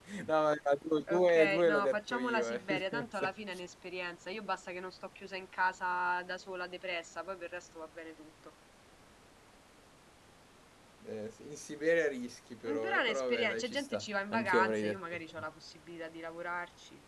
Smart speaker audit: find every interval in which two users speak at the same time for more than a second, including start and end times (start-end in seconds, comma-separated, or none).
1.1-3.3, 12.7-15.2